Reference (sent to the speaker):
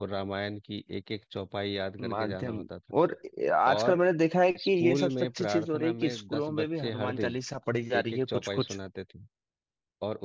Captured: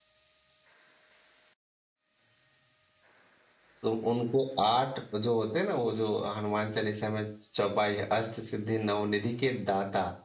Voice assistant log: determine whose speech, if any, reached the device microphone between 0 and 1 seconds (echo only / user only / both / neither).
neither